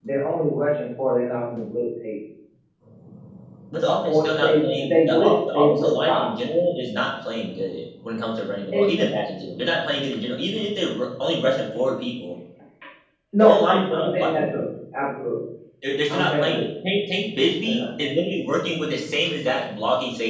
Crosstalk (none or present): present